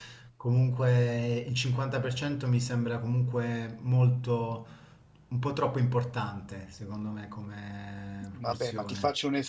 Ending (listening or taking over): taking over